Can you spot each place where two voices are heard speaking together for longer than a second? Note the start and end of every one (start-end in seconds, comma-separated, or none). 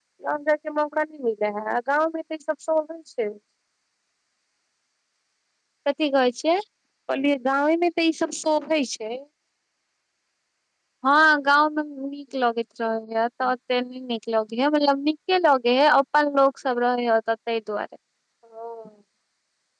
none